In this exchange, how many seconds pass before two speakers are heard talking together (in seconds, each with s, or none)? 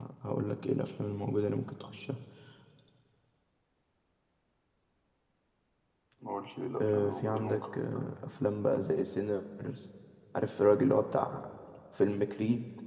6.8 s